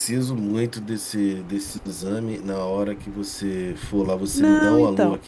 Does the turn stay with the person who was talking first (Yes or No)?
No